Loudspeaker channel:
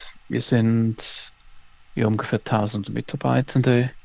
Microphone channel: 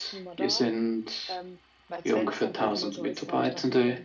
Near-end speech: present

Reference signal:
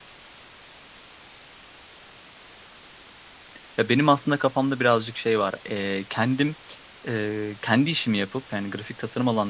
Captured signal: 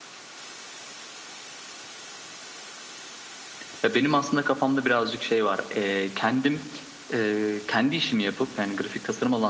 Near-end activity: none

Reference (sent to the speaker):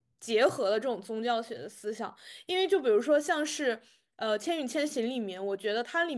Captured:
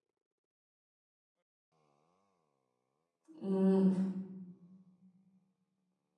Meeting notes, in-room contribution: present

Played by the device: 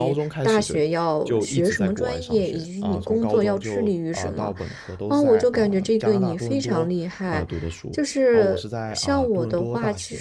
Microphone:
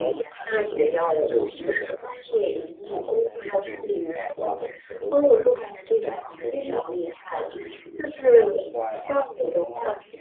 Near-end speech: present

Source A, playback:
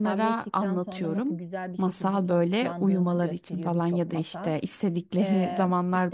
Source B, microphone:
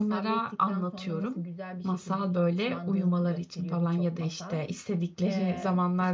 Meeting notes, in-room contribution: none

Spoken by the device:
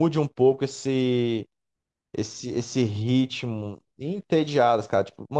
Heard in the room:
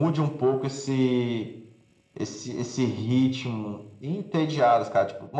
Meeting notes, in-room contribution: none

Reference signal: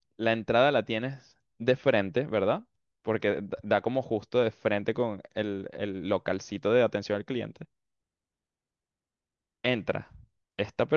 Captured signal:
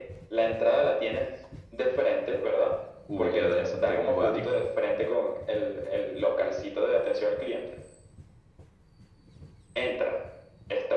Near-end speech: present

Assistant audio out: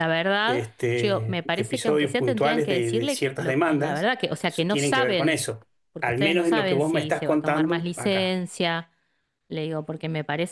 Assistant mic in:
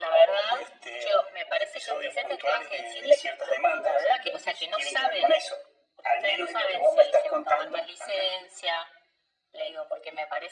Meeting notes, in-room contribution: none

